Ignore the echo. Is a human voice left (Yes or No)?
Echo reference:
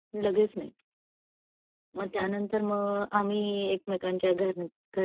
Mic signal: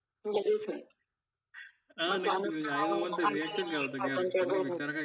Yes